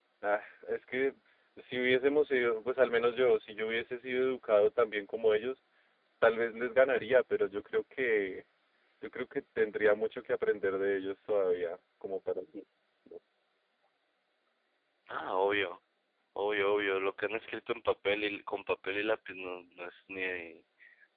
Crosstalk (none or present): none